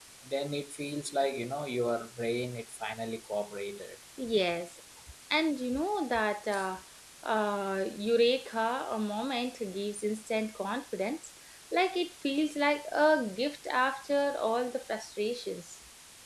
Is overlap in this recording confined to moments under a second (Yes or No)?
Yes